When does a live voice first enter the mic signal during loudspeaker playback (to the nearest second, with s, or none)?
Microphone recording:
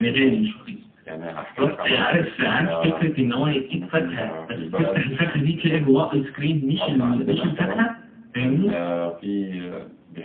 none